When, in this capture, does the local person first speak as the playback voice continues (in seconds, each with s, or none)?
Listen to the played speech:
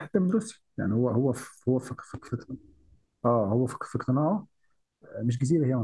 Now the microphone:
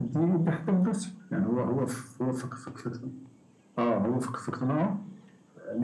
none